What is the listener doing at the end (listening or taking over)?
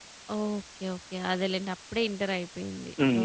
taking over